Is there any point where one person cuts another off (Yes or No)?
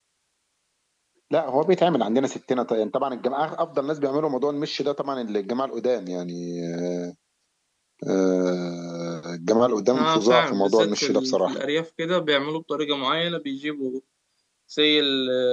Yes